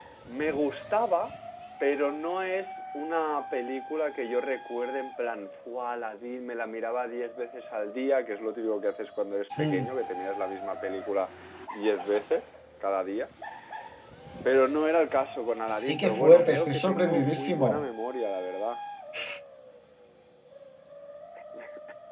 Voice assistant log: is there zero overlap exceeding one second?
No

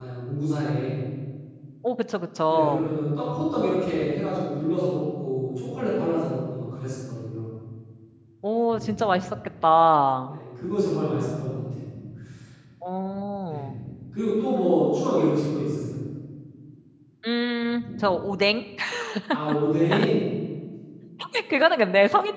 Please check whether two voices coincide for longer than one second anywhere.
No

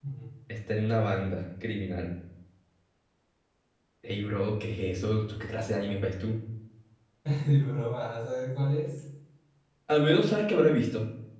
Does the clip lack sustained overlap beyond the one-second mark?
Yes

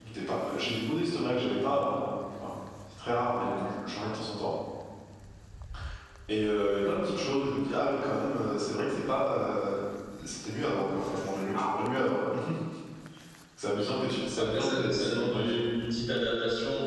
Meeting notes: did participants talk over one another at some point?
Yes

